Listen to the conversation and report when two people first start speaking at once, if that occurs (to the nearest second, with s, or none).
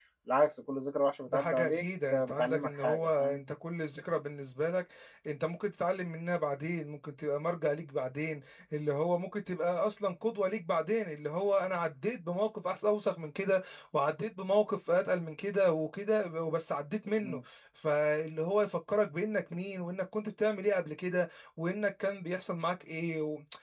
1 s